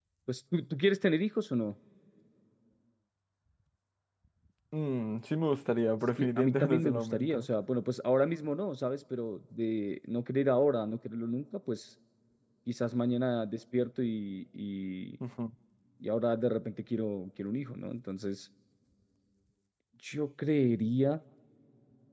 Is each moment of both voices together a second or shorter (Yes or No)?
No